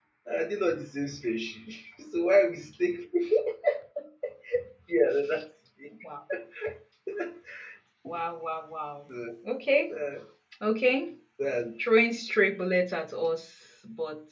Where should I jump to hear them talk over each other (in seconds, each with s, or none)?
none